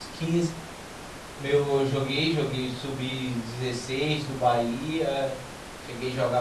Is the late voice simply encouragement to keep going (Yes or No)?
Yes